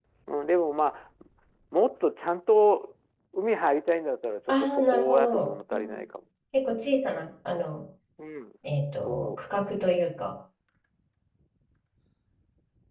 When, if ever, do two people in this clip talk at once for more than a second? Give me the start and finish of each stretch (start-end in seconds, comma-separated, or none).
4.6-6.0